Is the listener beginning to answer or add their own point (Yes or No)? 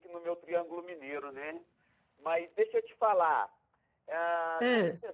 No